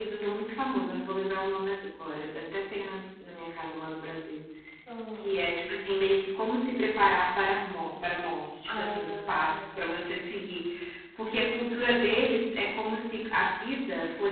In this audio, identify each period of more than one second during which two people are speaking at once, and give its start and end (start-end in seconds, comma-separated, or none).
8.7-10.1